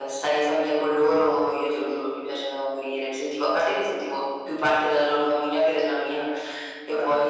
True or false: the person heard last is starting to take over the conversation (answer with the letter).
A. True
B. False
B